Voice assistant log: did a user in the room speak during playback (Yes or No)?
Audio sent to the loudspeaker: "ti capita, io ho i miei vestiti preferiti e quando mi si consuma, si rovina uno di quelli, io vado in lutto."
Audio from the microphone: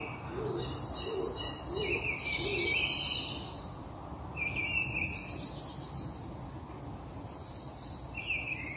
No